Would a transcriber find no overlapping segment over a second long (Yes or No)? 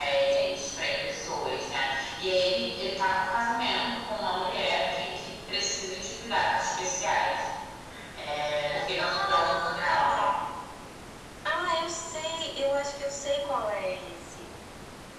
No